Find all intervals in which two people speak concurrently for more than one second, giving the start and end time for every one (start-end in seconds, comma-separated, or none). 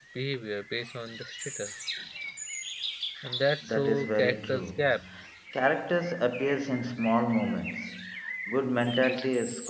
3.6-4.9